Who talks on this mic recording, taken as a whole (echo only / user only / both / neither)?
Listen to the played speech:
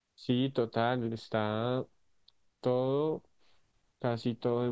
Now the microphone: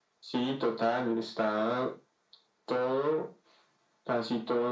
echo only